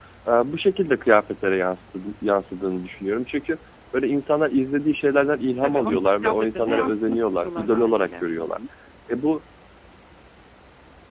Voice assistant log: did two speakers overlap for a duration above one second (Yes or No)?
Yes